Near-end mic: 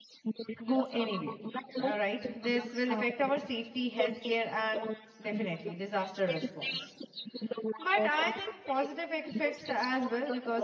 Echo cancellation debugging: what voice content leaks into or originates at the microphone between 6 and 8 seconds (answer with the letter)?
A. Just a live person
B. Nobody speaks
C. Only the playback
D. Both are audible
D